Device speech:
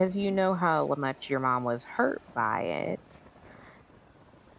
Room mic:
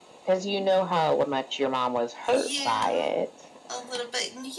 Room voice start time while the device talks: 2.3 s

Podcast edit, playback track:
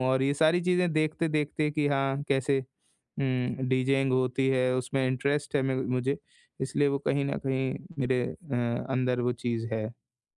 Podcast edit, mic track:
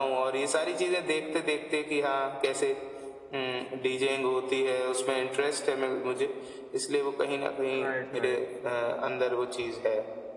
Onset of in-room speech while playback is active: 7.8 s

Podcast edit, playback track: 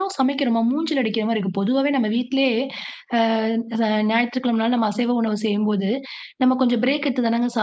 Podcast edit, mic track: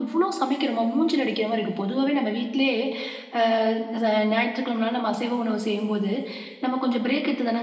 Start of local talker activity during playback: none

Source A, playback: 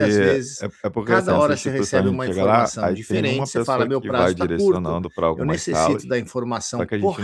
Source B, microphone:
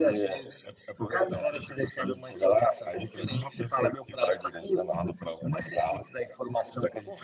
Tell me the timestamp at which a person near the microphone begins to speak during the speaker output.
none

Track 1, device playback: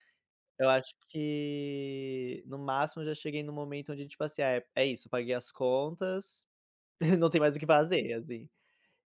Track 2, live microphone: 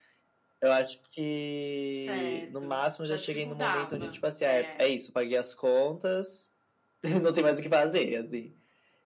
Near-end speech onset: 1.9 s

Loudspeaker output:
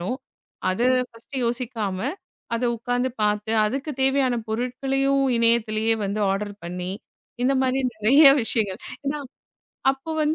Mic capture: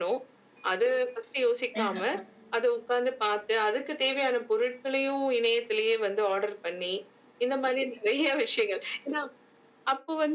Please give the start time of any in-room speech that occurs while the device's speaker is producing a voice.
1.8 s

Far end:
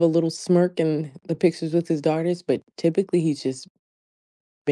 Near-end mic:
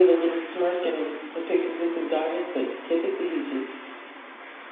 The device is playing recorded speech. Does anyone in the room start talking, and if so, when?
none

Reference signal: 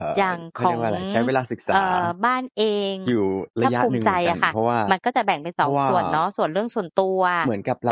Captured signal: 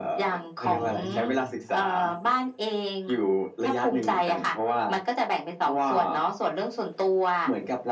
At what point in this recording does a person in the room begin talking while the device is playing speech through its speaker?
0.7 s

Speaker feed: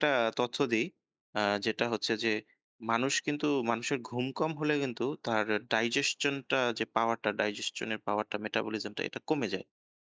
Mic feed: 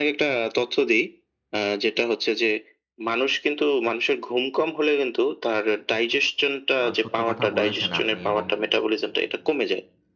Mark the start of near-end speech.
6.8 s

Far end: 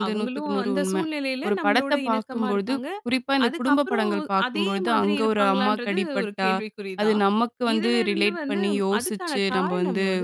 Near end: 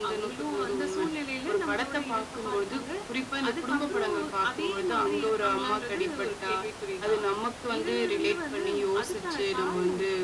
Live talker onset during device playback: none

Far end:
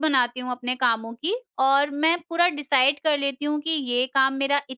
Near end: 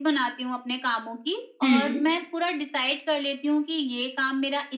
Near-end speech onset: 1.6 s

